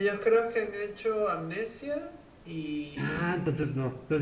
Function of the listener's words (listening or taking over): taking over